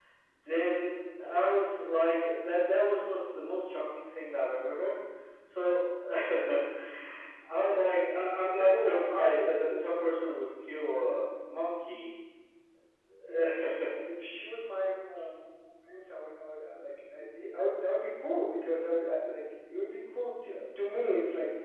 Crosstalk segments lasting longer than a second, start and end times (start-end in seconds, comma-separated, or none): 8.6-10.1